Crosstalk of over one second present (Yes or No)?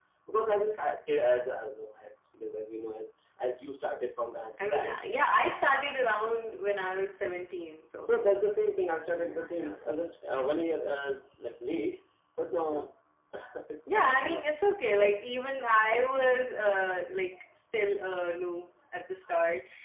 No